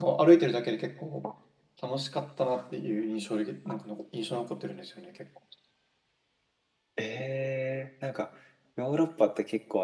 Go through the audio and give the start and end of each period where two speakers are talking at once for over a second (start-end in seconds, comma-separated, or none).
none